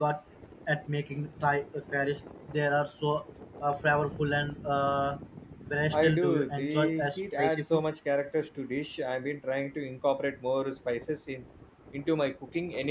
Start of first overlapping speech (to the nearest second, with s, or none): 6 s